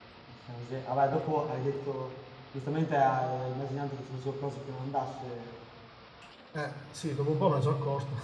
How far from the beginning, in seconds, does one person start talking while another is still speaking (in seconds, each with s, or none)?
none